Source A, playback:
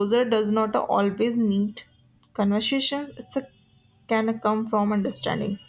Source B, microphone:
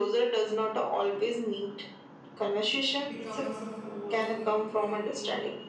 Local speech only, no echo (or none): become as a force me to grow